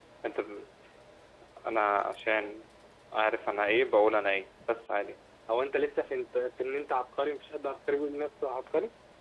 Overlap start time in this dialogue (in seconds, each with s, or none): none